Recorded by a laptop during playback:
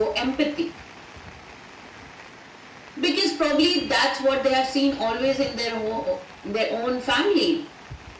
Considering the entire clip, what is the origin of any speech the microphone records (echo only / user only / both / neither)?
echo only